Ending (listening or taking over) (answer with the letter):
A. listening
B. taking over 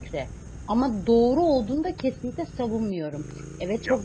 A